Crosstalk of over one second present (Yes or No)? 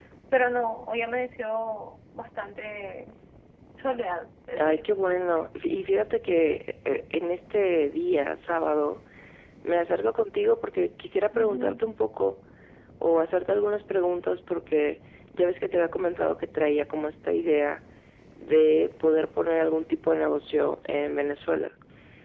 No